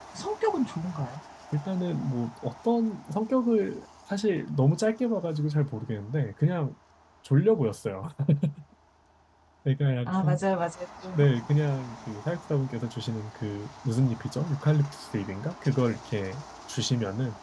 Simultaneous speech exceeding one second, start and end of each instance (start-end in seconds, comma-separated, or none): none